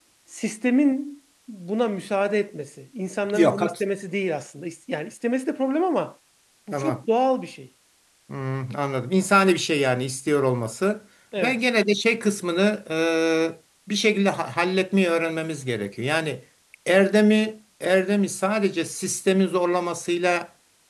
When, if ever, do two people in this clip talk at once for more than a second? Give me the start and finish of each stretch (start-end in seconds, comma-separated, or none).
none